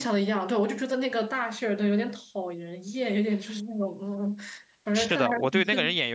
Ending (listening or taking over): taking over